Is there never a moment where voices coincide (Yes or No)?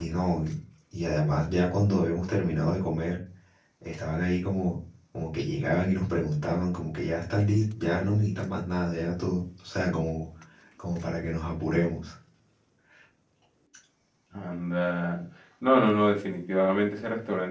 Yes